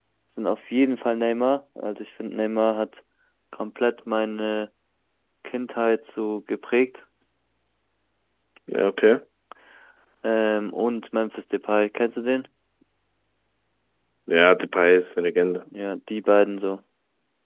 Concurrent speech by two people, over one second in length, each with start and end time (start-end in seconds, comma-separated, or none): none